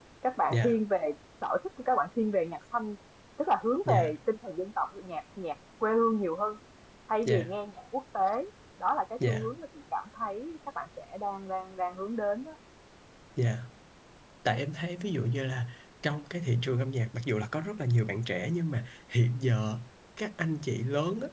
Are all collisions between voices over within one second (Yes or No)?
Yes